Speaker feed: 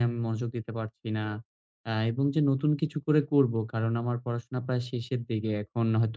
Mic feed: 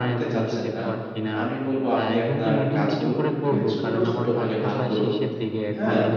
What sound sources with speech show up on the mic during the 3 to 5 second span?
both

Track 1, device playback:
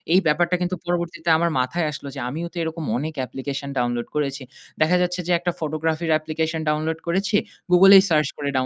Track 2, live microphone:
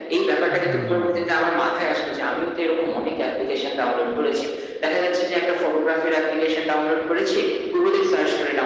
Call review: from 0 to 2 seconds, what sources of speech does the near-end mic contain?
both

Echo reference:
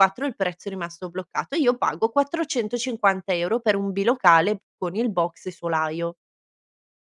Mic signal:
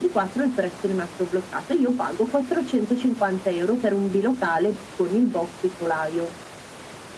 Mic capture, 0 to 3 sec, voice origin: echo only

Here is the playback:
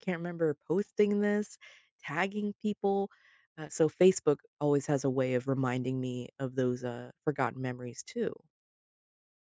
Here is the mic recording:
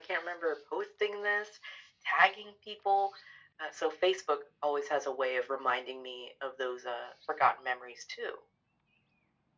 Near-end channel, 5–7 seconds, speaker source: echo only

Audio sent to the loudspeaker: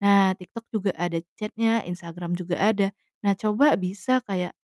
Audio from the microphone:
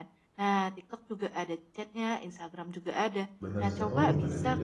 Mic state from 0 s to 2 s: echo only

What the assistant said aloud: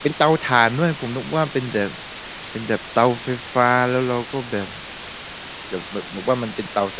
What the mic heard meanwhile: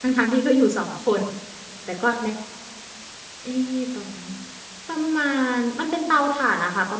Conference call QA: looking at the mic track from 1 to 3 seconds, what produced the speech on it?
user only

